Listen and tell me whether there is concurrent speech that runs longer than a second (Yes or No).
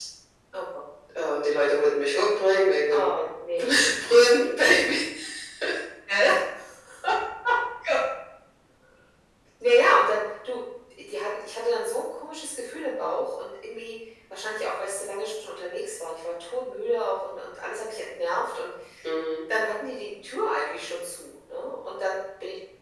No